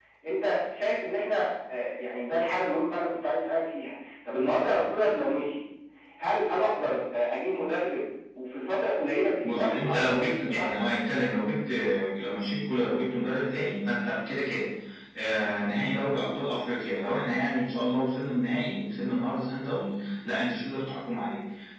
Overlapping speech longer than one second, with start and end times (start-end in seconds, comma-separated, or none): 9.4-10.8